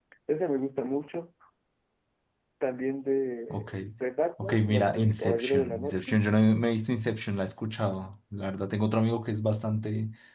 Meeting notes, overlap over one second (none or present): present